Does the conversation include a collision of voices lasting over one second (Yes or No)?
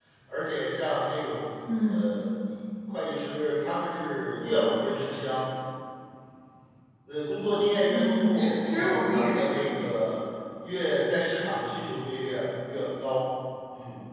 Yes